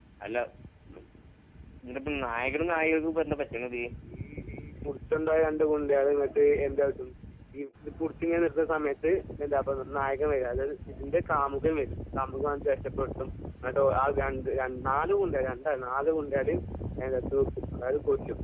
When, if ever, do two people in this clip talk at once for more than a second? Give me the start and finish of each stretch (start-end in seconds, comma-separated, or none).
none